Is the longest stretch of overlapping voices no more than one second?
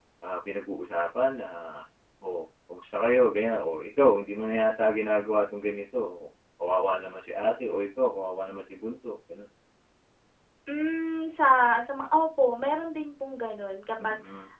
Yes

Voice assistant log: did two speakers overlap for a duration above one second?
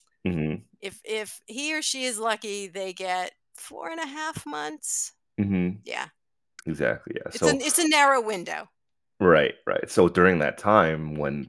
No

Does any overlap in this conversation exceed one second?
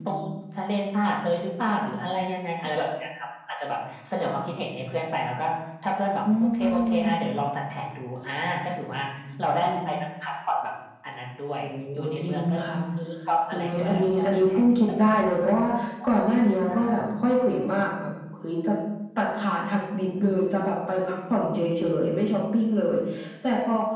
Yes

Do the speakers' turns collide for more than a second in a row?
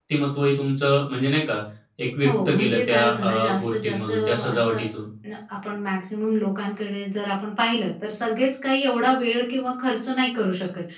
Yes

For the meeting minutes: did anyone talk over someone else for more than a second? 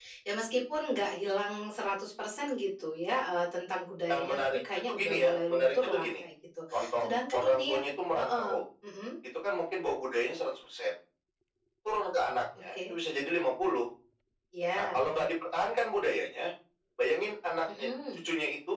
Yes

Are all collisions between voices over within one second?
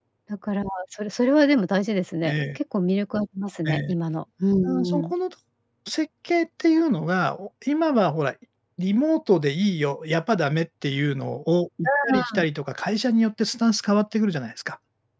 Yes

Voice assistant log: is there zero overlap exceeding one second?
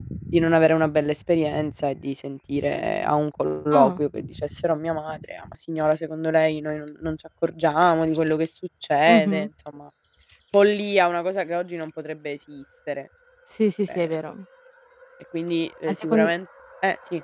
Yes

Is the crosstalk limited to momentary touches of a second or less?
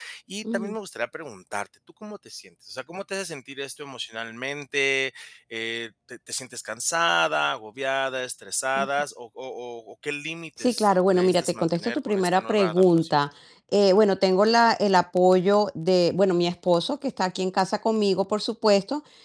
No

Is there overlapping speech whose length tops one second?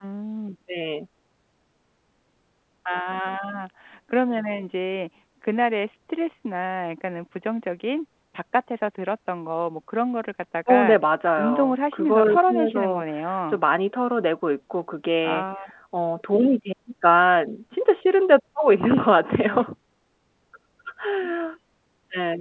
Yes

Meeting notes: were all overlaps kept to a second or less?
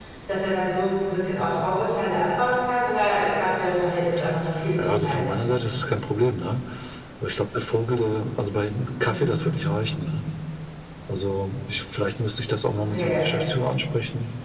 Yes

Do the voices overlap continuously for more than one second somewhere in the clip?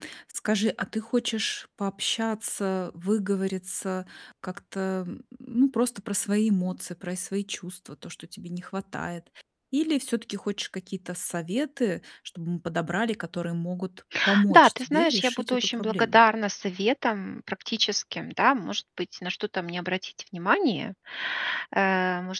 Yes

